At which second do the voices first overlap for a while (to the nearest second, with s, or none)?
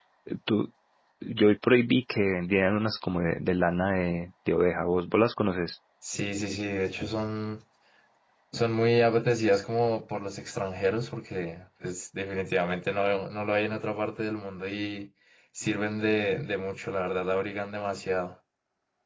none